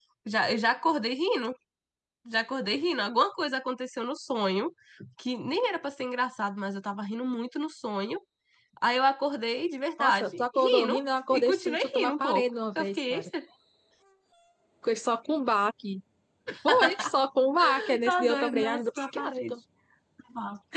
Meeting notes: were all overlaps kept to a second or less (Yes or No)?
No